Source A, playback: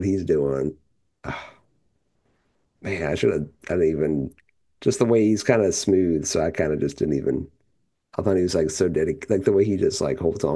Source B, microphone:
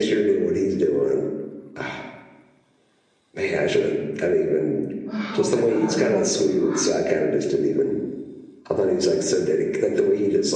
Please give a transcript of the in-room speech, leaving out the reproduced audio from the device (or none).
Oh my god, I don't know what to do.